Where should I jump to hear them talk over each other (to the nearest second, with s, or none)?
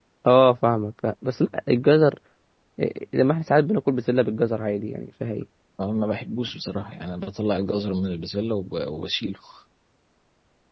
none